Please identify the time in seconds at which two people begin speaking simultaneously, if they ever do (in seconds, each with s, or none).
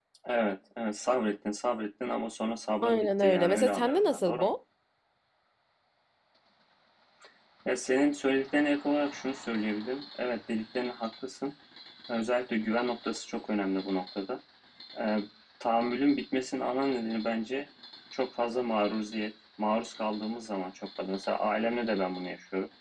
2.8 s